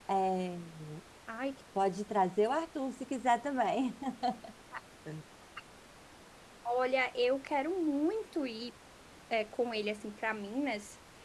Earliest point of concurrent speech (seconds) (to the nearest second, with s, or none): none